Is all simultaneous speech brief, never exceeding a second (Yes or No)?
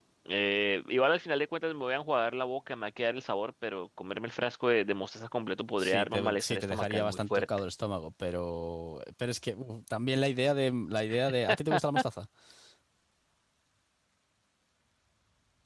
No